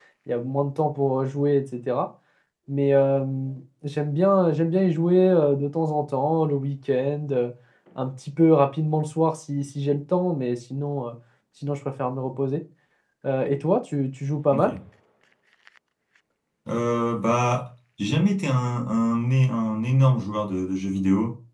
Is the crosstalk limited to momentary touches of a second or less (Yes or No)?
Yes